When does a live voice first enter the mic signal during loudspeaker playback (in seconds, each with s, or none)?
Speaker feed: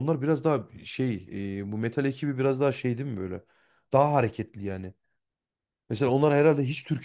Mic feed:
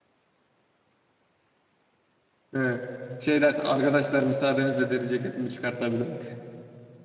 2.5 s